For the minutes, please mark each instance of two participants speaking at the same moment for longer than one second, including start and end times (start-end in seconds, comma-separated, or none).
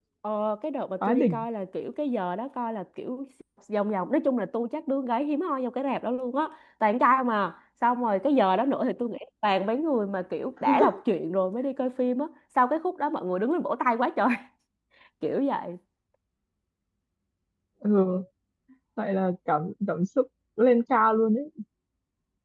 none